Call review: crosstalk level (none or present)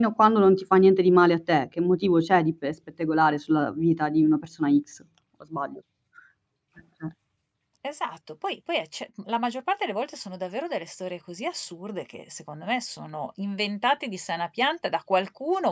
none